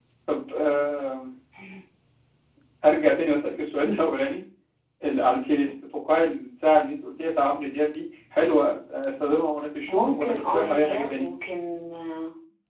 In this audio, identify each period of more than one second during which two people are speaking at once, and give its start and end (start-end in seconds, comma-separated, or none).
9.9-11.3